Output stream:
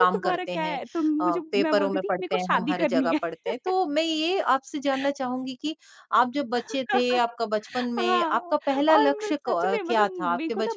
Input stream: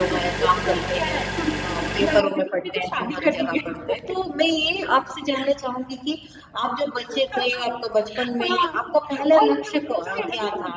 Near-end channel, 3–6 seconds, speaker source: echo only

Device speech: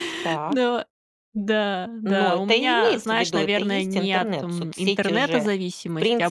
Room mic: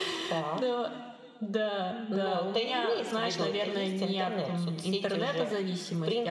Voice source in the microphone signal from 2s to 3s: echo only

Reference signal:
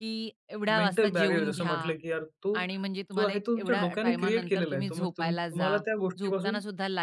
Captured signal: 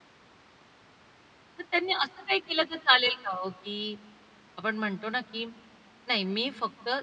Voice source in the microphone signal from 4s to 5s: user only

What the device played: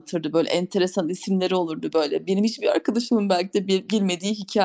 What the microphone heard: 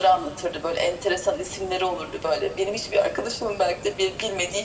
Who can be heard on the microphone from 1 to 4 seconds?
echo only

